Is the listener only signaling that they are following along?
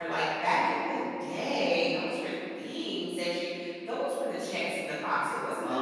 Yes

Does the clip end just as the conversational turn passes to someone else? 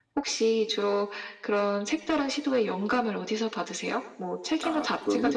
No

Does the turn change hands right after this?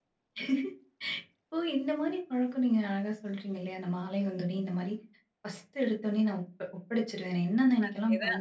No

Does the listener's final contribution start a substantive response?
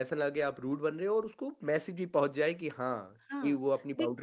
Yes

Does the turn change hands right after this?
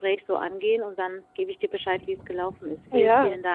Yes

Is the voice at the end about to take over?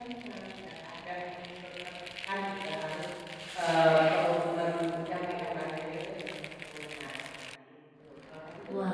Yes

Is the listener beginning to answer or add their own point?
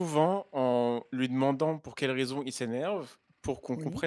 No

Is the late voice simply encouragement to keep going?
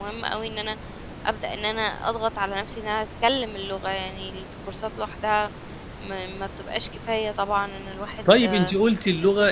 No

